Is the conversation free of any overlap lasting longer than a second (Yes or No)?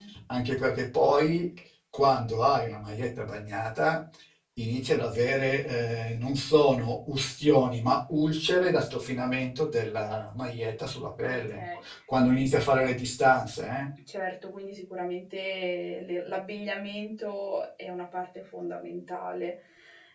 Yes